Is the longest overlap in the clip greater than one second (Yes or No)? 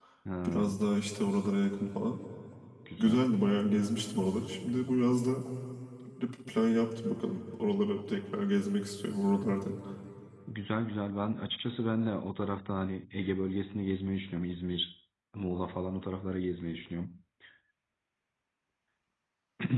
No